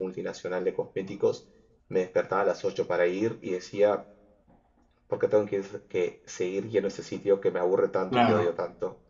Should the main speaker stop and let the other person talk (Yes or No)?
No